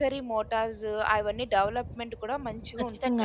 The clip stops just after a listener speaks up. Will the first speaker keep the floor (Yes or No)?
No